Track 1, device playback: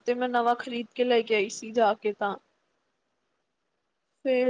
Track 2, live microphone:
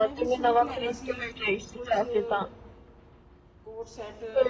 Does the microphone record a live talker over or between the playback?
Yes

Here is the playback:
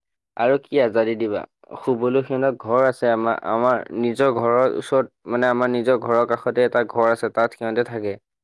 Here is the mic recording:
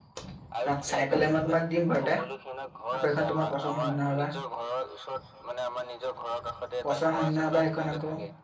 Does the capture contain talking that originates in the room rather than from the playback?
Yes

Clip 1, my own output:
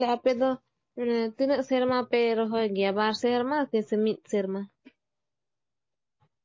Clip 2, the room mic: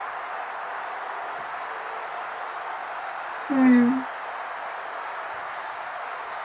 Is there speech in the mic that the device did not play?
Yes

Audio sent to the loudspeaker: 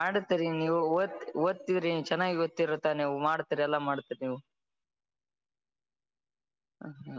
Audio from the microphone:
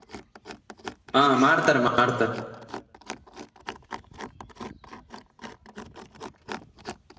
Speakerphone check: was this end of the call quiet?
No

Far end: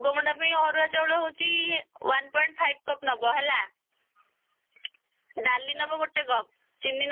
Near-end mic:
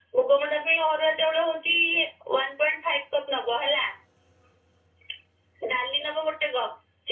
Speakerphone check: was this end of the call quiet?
Yes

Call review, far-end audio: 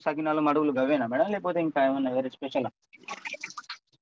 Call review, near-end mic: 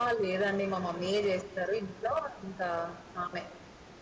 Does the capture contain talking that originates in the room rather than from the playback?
Yes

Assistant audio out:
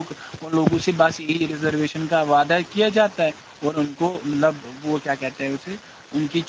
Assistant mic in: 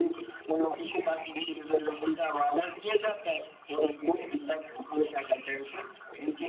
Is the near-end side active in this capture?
No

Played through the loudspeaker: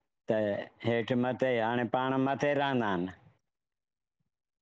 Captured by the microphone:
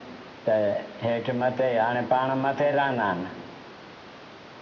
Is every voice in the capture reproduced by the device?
Yes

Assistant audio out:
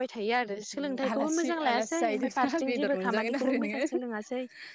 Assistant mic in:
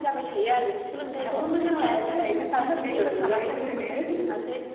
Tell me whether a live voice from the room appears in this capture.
No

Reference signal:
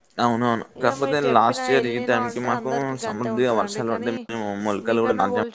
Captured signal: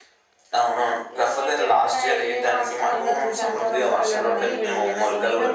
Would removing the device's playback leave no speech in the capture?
No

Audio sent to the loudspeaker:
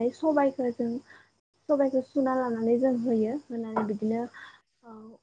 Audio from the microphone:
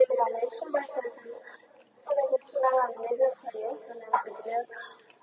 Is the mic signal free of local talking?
Yes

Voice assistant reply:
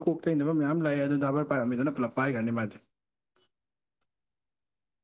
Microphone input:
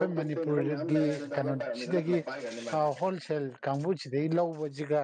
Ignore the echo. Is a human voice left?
Yes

